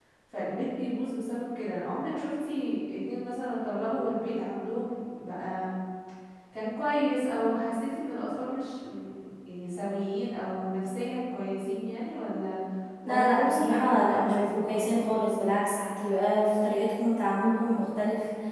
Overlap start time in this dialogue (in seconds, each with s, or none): 13.1 s